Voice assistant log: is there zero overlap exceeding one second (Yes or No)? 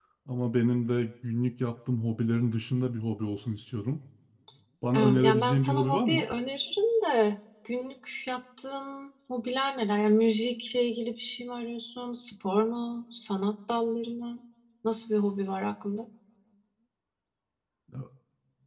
No